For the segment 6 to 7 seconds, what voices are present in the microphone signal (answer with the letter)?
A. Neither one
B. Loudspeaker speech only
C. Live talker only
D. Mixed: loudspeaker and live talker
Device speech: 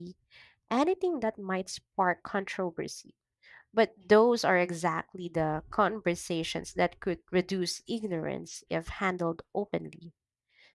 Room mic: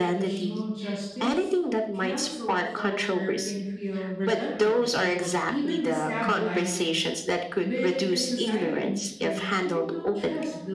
D